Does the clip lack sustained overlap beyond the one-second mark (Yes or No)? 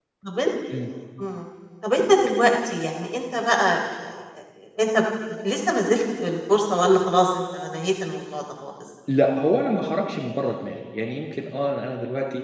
Yes